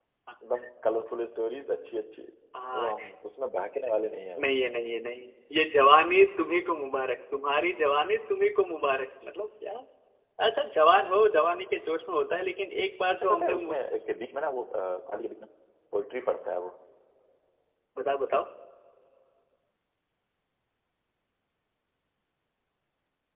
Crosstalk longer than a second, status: none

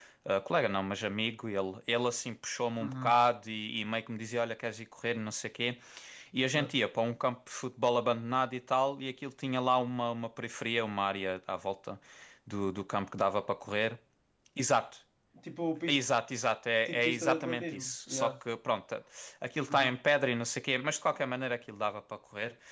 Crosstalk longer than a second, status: present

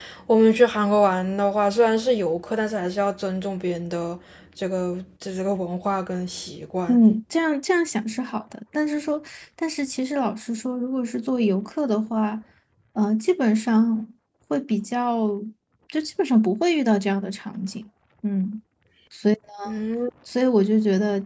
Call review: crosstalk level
none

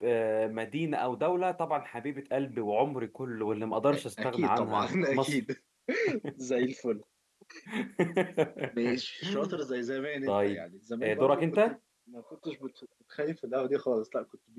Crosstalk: present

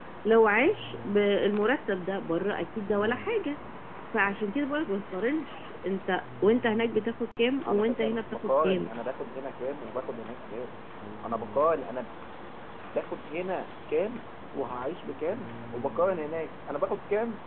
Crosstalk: present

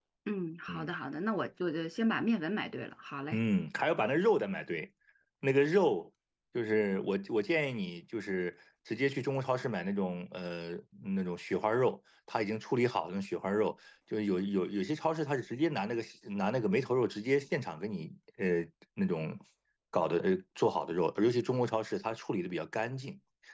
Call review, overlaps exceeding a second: none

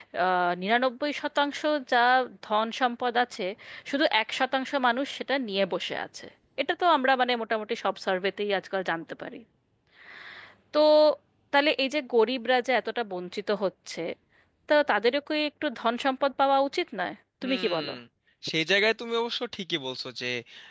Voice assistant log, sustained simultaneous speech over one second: none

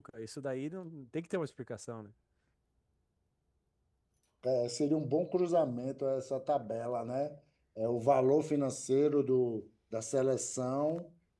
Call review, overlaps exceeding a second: none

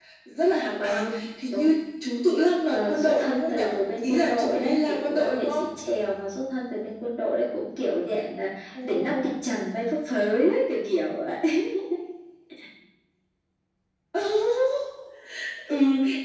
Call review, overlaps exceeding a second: present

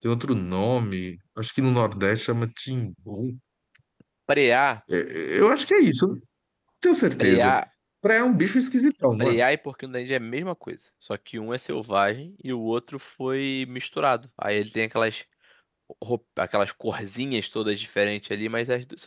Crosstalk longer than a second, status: none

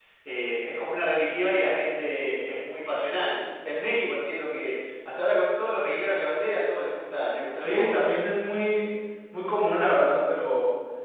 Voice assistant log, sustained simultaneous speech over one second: none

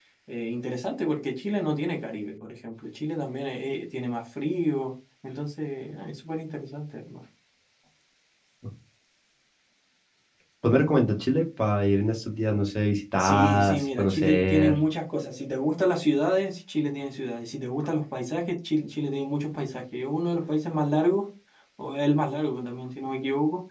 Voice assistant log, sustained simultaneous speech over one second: present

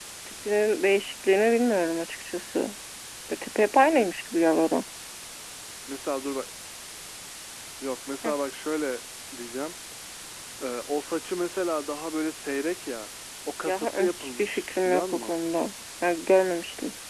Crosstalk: present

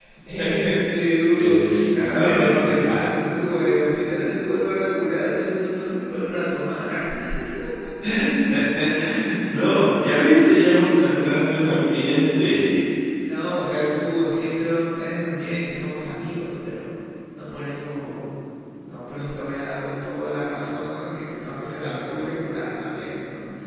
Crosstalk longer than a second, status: present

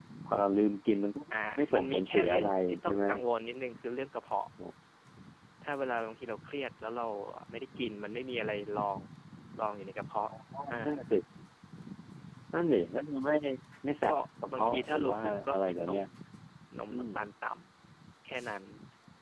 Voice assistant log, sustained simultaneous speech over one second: present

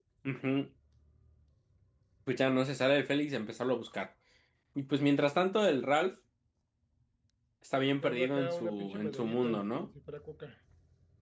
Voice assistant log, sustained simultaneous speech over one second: present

